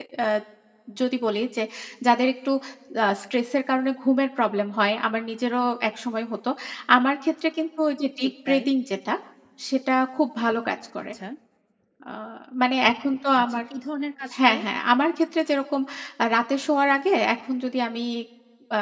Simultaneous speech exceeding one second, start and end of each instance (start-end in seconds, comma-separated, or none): none